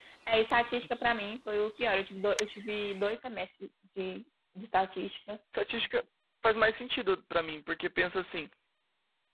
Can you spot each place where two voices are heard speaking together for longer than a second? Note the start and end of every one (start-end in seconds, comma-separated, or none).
none